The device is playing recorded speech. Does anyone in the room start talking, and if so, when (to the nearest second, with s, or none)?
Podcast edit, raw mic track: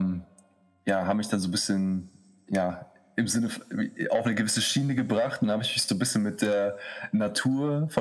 none